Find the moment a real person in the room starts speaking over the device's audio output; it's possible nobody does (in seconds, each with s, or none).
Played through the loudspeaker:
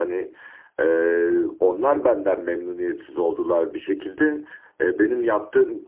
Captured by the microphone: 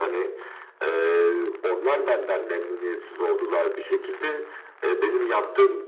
none